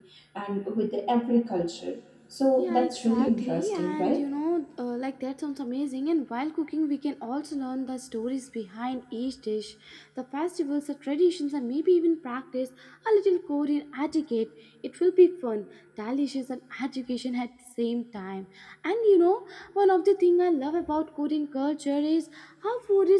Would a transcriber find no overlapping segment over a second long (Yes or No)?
No